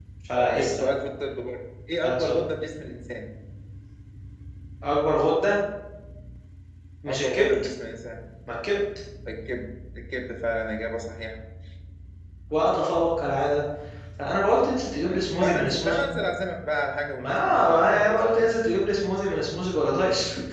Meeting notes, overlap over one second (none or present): present